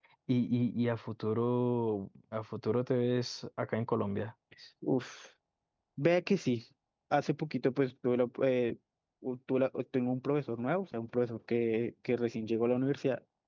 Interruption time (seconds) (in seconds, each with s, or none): none